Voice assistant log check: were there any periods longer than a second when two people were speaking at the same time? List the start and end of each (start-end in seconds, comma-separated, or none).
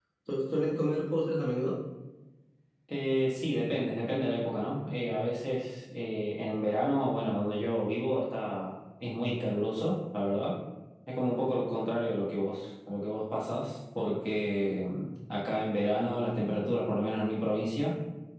none